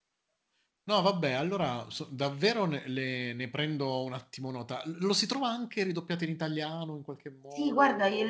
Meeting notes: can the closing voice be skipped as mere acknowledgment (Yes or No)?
No